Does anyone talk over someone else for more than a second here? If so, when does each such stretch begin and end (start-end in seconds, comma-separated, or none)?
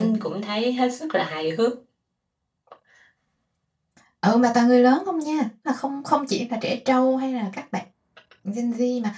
none